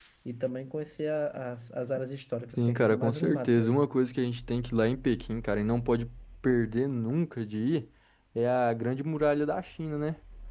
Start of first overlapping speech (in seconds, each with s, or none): 2.6 s